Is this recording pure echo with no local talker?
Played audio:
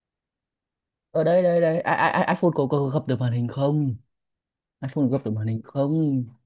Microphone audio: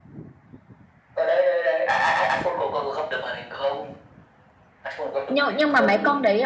No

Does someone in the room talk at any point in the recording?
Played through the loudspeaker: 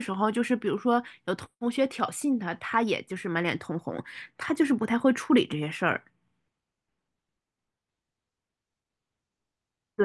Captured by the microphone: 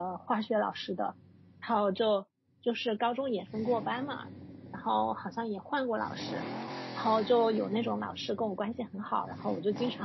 Yes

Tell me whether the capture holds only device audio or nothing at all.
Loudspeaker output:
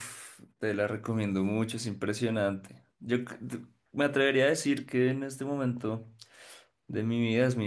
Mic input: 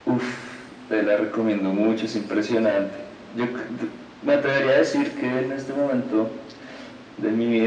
Yes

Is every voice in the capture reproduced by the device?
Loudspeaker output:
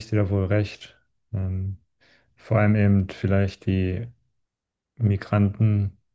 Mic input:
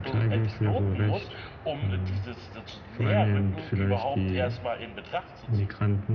No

